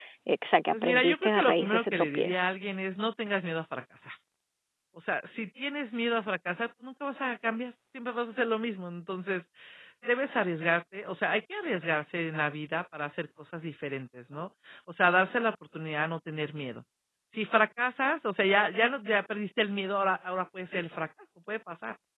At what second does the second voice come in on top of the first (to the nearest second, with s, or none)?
1 s